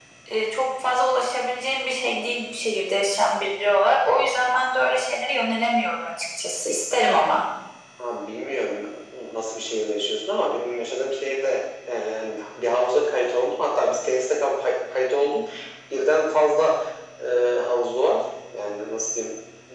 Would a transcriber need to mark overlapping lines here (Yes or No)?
No